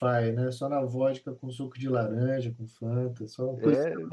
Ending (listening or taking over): taking over